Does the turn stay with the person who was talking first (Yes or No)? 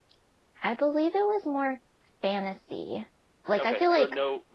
No